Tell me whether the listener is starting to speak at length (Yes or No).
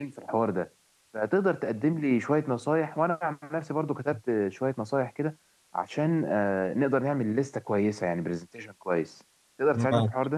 Yes